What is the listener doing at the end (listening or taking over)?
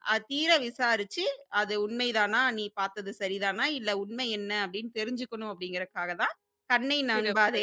listening